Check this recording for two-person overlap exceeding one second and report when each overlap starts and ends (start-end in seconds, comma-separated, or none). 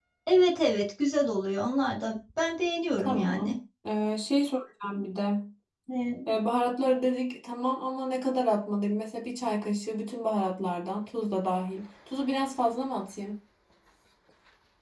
none